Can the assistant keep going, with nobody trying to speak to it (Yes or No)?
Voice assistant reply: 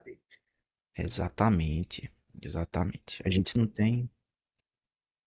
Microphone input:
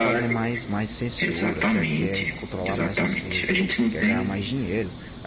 No